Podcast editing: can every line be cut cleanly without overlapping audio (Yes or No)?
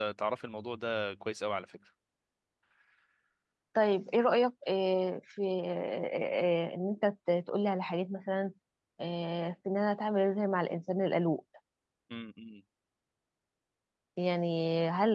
Yes